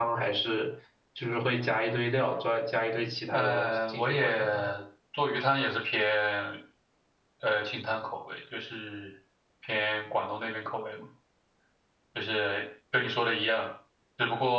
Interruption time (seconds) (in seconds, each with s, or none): 3.3 s